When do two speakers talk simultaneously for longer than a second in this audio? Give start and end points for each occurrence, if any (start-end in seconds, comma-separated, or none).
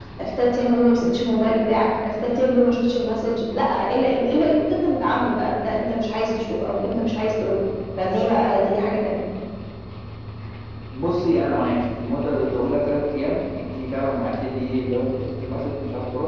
none